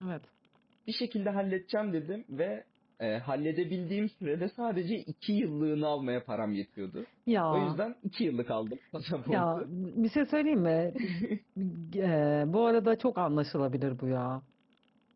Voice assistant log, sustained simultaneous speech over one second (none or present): none